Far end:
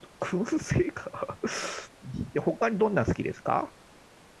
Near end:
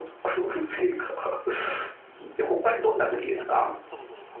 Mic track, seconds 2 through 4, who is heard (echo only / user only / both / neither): both